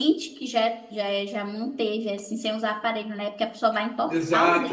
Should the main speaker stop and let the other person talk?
Yes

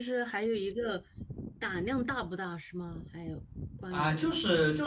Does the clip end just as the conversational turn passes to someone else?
Yes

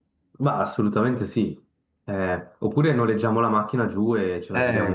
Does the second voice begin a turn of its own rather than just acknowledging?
Yes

